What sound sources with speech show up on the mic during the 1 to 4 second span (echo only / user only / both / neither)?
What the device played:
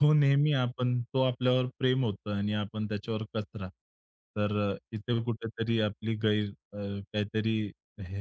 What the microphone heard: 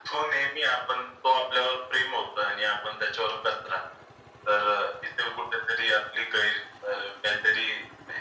echo only